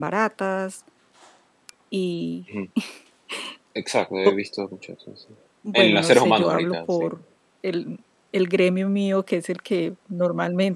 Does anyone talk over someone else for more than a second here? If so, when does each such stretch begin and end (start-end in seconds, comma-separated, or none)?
5.7-7.1